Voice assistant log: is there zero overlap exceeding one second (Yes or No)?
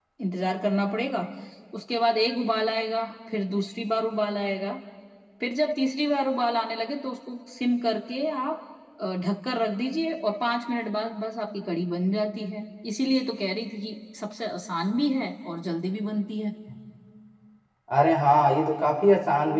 Yes